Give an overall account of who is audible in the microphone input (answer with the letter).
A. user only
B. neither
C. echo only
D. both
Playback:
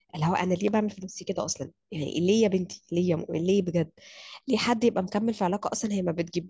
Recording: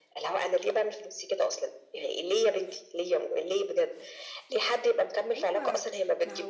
D